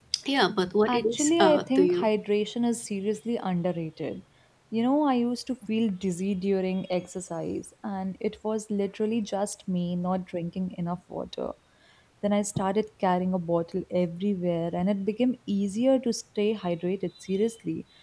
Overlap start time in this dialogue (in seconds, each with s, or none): 0.9 s